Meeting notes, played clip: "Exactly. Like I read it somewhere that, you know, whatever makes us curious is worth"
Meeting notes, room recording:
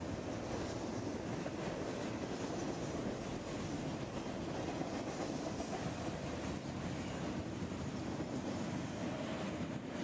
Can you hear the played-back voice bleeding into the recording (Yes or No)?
No